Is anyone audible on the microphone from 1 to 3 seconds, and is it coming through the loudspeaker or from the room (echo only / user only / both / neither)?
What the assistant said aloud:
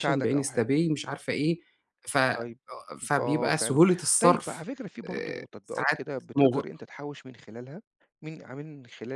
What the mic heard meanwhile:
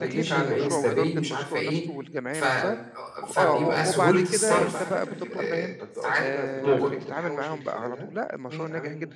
both